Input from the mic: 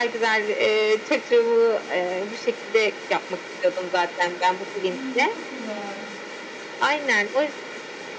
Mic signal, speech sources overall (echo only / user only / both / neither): both